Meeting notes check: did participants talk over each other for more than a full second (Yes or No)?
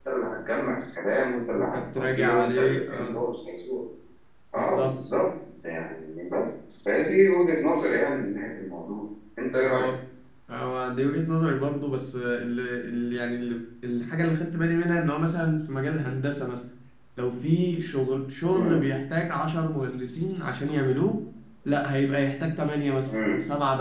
Yes